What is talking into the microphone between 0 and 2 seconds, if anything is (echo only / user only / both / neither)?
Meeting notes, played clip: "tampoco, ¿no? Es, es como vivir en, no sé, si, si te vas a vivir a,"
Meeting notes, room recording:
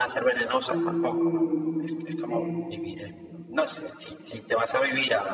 both